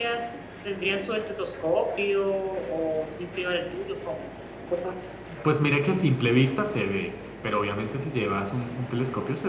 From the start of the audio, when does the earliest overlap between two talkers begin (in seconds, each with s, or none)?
none